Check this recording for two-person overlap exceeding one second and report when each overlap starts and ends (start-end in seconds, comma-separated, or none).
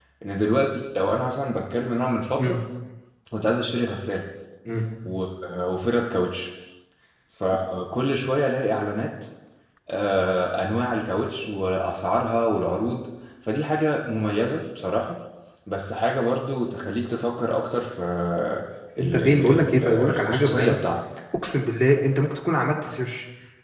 19.0-20.8